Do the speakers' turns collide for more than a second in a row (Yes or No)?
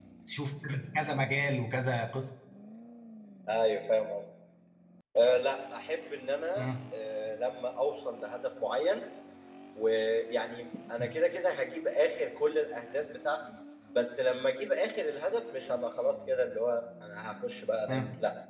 No